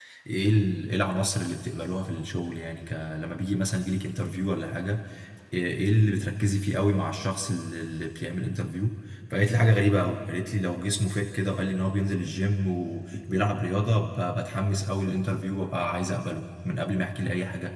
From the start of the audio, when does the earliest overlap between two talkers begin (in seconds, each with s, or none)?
none